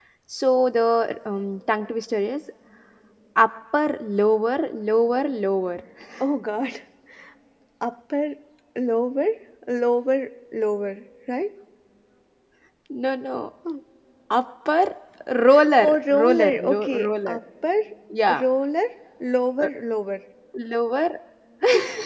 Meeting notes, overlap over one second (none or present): present